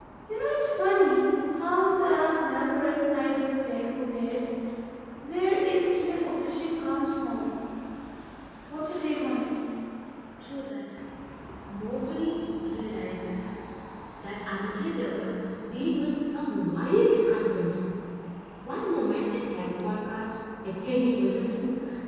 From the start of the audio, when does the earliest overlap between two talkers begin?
none

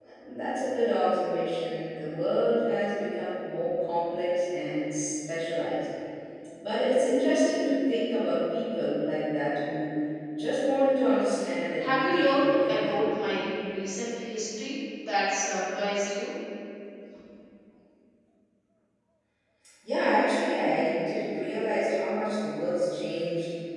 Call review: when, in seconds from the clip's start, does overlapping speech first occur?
11.8 s

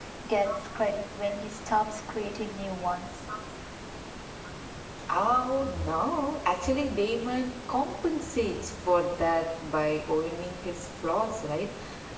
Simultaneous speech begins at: none

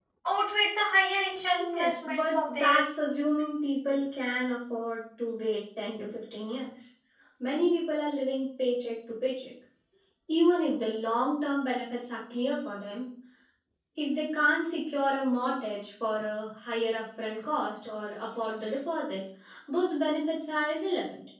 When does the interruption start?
1.8 s

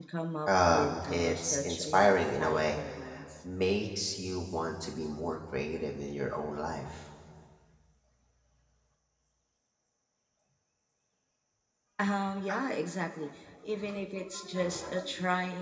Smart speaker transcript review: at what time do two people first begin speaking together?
0.7 s

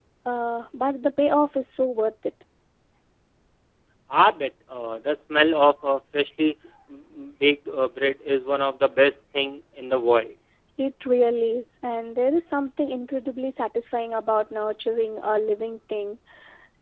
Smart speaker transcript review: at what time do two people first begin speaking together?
none

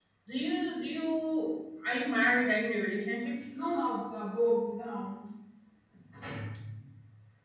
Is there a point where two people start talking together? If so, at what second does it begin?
none

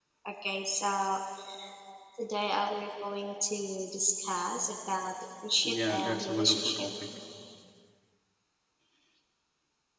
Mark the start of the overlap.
5.6 s

